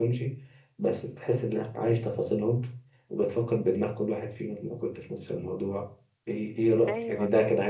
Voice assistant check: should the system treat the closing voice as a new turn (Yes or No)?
No